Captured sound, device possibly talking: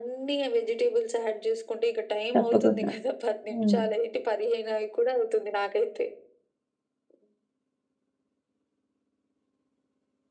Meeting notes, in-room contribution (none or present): present